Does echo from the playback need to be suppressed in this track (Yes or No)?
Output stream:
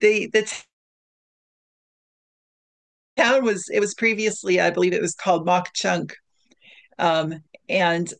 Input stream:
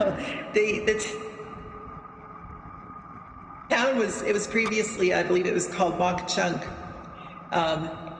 Yes